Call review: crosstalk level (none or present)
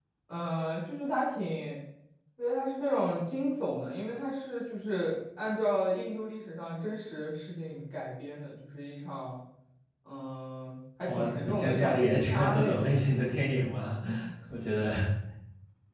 present